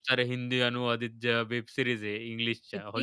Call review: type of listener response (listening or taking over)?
taking over